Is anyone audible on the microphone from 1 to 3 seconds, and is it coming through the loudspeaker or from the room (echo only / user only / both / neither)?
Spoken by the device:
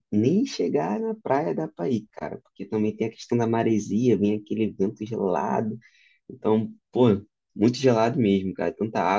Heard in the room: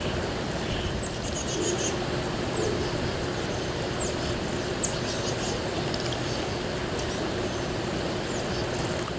neither